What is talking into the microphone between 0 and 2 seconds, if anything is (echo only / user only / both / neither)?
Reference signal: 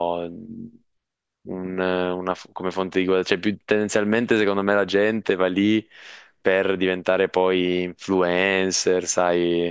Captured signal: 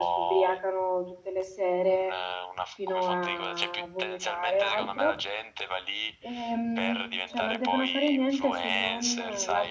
both